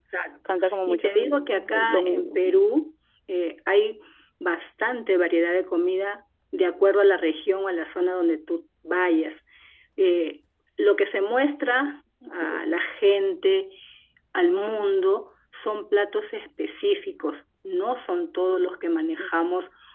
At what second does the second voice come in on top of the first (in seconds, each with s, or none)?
0.9 s